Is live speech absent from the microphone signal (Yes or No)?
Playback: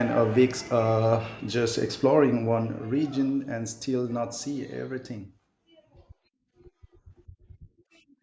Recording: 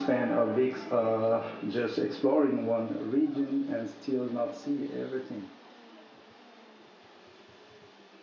Yes